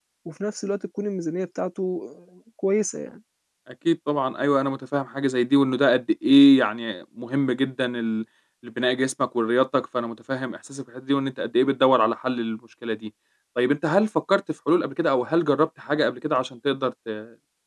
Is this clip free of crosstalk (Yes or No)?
Yes